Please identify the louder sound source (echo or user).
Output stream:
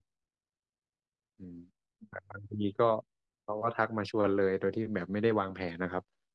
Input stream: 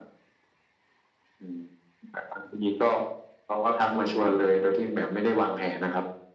echo